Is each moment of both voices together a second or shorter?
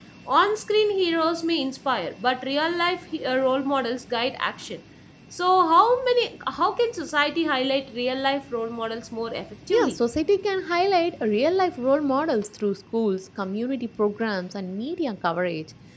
Yes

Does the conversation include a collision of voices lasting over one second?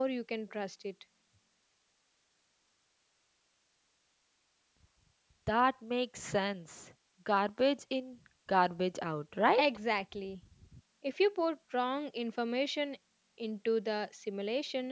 No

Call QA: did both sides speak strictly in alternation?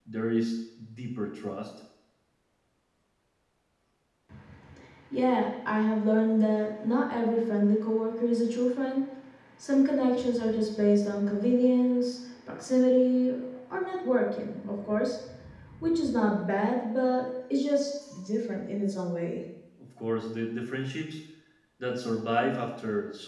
Yes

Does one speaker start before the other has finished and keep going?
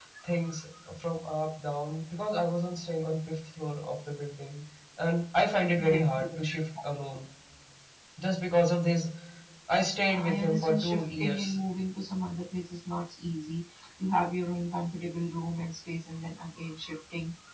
Yes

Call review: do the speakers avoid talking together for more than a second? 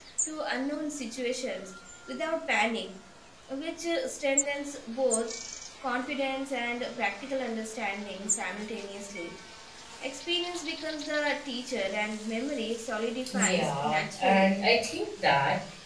No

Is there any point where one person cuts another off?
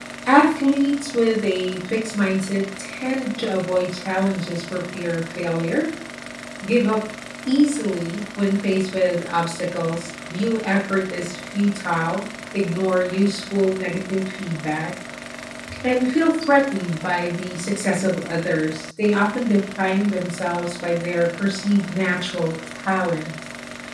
No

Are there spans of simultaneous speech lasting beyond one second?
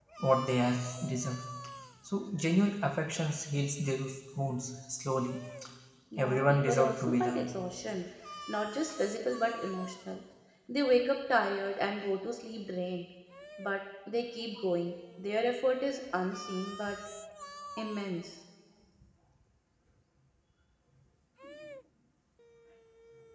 Yes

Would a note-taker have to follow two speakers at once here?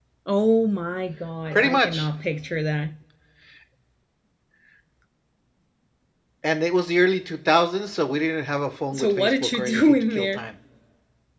Yes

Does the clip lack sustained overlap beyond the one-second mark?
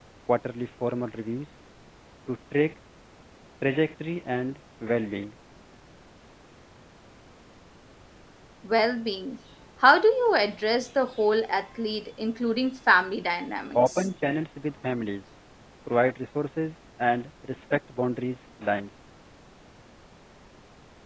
Yes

